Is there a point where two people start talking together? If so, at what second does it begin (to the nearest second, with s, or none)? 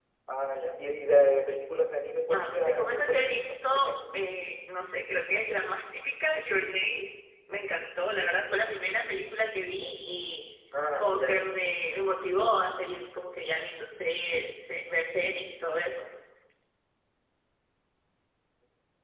2 s